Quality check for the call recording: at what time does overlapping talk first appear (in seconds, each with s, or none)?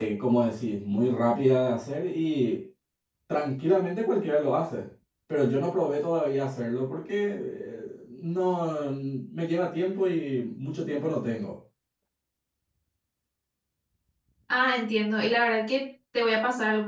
none